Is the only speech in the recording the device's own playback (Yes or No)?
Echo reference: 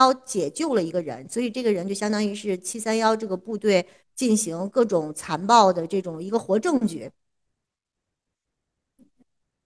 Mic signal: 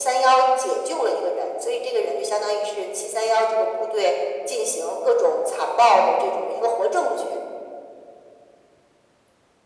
Yes